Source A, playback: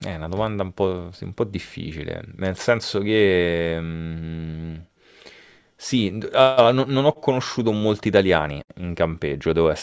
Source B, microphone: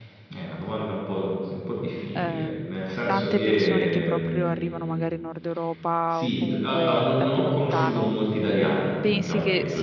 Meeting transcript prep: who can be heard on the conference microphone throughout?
both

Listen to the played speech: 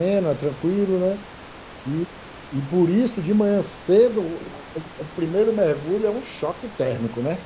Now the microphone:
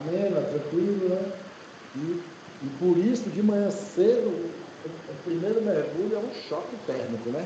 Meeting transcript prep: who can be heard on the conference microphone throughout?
echo only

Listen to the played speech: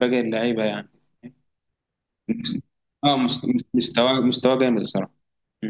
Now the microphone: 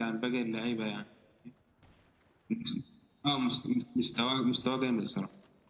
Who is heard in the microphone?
echo only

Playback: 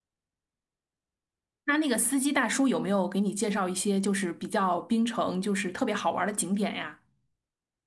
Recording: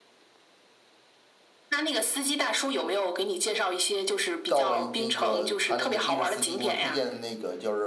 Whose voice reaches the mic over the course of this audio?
both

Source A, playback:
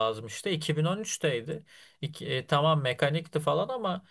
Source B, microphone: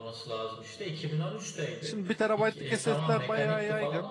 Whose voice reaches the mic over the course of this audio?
both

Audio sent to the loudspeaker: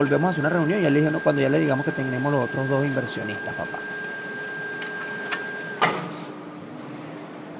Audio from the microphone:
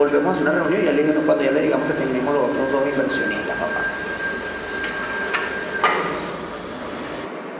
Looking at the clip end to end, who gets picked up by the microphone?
echo only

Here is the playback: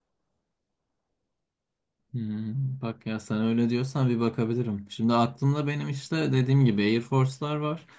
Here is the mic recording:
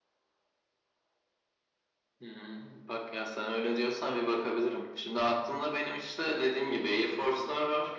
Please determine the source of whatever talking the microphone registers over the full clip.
echo only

